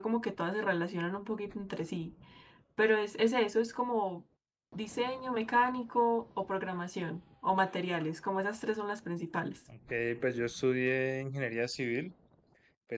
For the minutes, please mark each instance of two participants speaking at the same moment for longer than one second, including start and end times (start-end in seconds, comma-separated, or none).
none